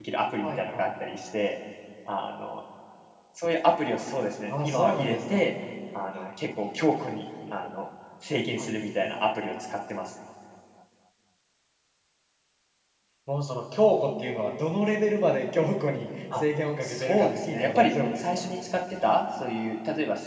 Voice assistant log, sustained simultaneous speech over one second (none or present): present